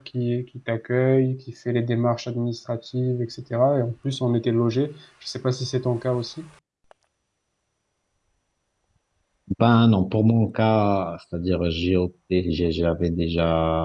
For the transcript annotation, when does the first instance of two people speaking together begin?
none

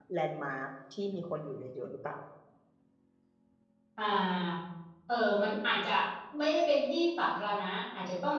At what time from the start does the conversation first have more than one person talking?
none

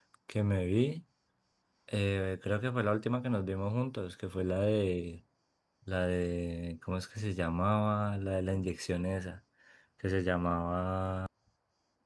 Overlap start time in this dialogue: none

